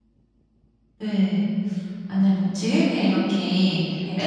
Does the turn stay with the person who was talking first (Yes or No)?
Yes